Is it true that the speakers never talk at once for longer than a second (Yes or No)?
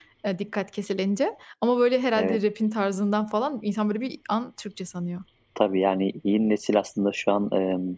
Yes